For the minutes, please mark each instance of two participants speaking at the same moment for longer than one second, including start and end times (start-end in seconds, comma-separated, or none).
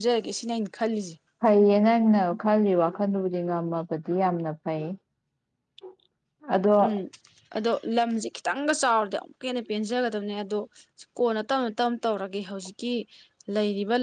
none